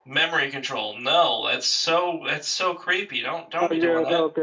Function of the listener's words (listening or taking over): taking over